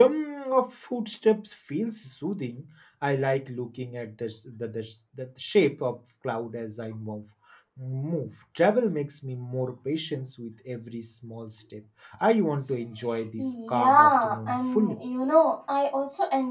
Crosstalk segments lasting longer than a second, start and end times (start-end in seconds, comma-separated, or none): 13.4-15.0